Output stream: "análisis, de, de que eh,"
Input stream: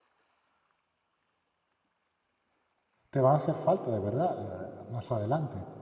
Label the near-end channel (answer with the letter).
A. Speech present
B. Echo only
A